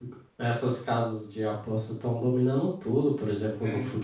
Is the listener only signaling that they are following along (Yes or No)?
Yes